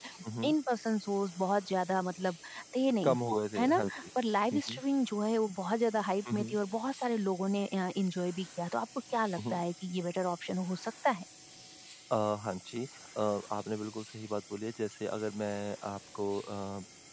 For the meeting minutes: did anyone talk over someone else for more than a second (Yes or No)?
No